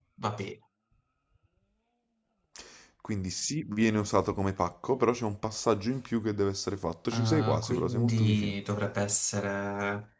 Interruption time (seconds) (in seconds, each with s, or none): 7.1 s